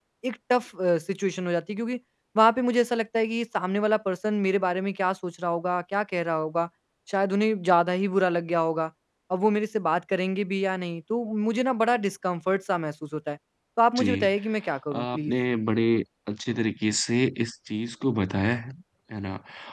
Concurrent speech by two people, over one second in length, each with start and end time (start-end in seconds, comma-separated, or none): none